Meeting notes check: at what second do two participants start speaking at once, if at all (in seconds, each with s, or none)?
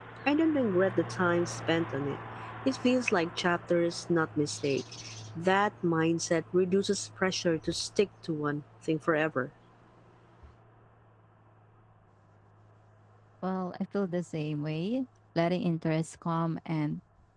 none